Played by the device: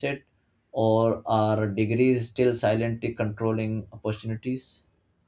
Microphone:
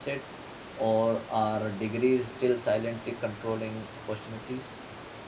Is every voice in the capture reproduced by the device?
Yes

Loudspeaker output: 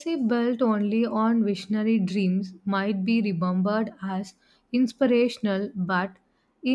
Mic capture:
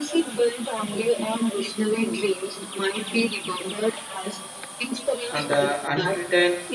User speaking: Yes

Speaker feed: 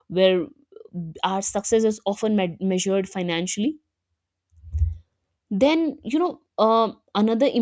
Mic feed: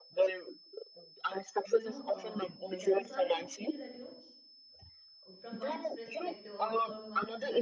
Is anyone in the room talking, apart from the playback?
Yes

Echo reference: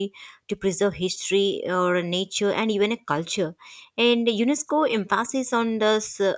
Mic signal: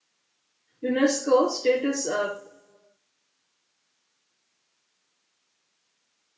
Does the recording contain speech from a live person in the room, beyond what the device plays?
Yes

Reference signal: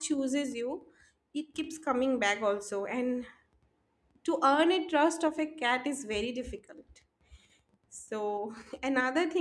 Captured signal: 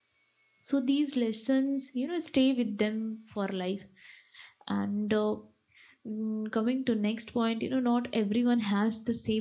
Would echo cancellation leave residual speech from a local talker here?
Yes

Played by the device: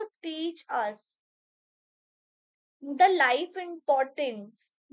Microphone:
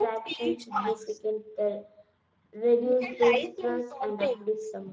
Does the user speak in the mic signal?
Yes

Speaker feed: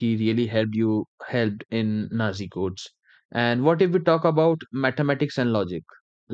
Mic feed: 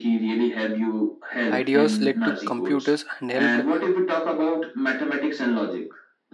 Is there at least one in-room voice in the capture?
Yes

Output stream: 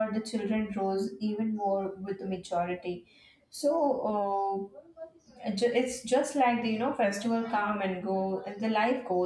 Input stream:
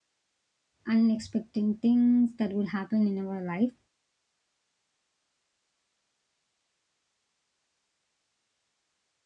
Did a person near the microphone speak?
Yes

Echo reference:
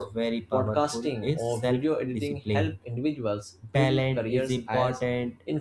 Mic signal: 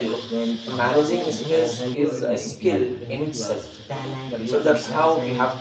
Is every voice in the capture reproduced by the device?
No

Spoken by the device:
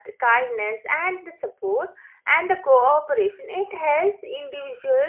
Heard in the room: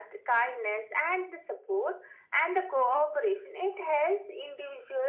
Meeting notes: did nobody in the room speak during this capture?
Yes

